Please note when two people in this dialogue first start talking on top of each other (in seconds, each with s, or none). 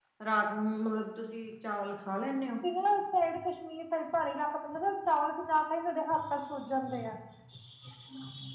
none